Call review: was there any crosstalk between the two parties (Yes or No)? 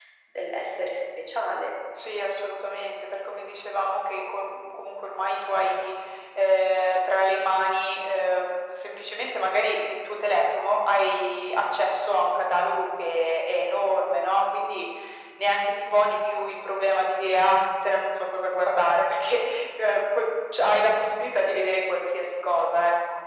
No